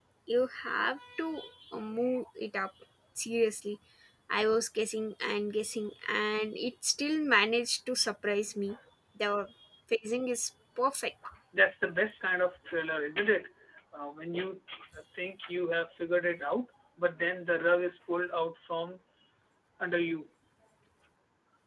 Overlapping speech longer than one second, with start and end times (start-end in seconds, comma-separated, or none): none